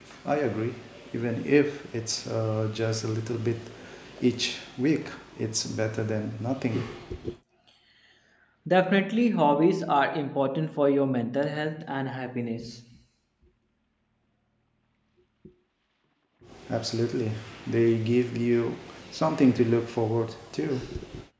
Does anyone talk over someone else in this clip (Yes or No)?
No